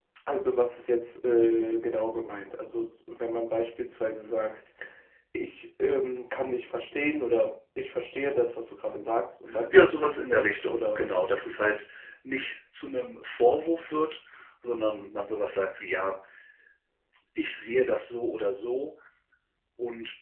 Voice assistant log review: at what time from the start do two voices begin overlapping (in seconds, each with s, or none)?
9.5 s